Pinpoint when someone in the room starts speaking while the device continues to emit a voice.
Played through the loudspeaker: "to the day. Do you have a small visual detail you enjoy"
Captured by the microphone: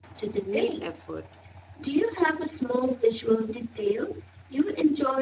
0 s

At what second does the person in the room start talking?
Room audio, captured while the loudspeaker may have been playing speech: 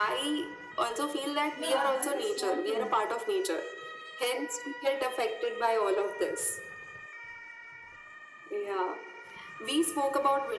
2 s

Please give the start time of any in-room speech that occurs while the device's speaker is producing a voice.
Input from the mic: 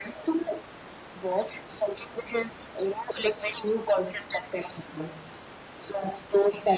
none

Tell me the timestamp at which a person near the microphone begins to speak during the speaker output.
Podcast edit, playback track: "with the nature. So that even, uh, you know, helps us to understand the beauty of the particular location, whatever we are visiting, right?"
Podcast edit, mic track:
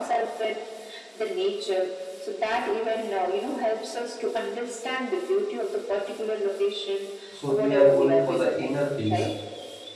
7 s

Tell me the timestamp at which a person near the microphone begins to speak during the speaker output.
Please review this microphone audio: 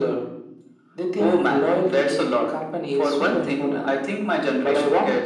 none

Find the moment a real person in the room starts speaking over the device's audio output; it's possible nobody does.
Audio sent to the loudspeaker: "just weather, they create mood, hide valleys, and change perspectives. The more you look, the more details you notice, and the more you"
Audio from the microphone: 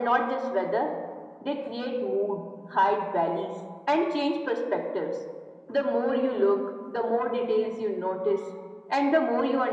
none

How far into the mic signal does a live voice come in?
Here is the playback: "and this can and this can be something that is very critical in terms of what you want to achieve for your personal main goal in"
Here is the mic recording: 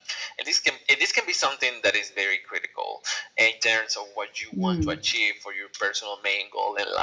5 s

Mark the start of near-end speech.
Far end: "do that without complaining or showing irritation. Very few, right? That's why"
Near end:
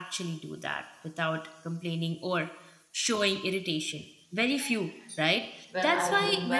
6 s

